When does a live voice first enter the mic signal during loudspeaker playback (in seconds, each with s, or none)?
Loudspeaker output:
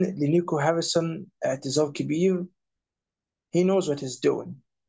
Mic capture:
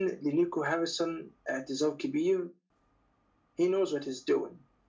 none